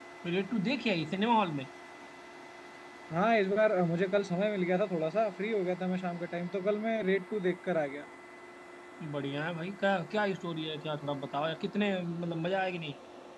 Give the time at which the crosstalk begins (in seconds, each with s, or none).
none